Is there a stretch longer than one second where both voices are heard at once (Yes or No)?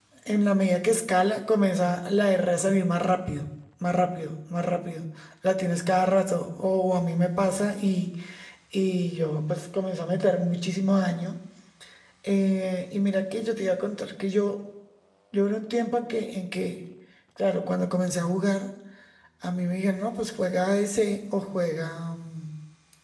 No